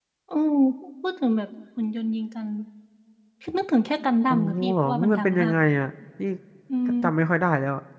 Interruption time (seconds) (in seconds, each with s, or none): 4.3 s